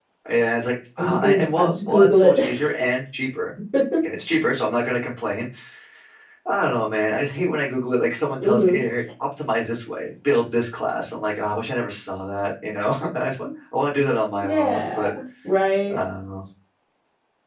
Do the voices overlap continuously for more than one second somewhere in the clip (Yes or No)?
Yes